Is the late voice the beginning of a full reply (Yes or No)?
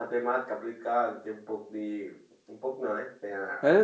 Yes